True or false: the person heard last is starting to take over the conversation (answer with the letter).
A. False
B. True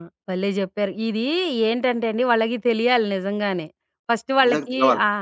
A